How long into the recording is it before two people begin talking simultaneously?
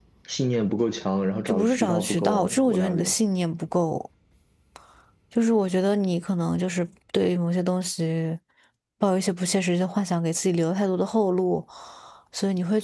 1.5 s

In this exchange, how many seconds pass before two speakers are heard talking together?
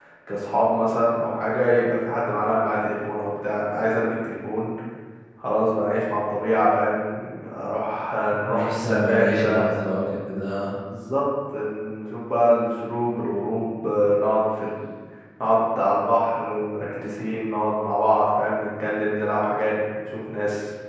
8.3 s

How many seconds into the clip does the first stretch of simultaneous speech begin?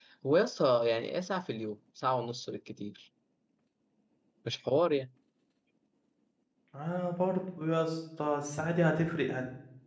none

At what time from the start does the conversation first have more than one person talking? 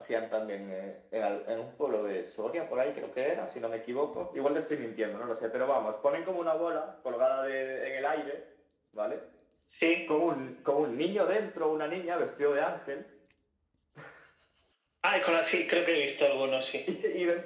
none

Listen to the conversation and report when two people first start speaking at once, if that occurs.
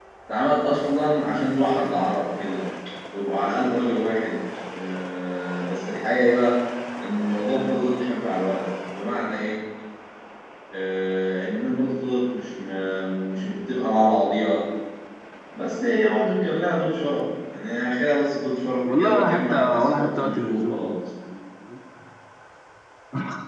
18.8 s

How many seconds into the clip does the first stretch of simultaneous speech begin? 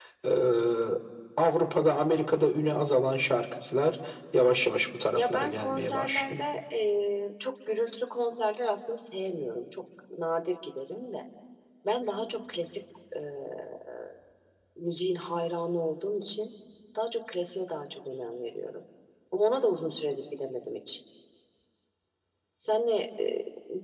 5.1 s

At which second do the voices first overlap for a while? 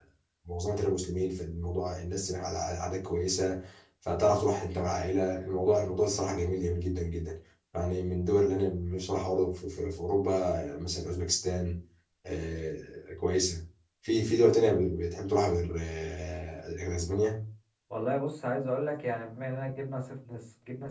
none

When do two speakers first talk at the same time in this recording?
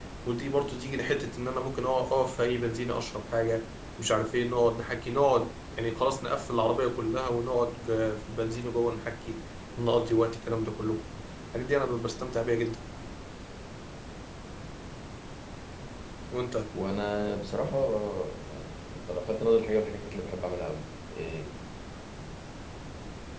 none

